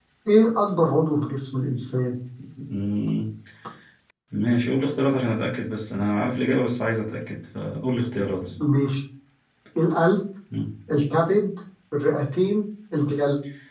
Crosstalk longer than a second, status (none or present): none